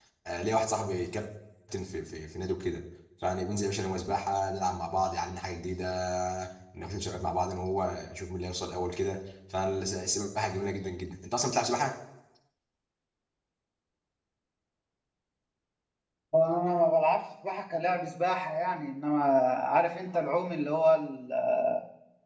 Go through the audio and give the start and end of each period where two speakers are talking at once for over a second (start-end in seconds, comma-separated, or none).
none